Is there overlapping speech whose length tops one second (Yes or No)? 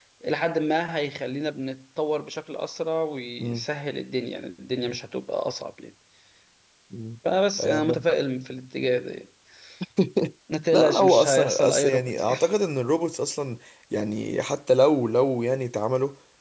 Yes